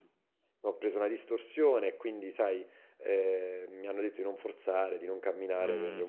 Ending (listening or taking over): listening